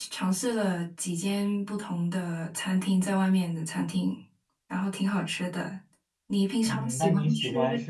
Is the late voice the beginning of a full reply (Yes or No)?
Yes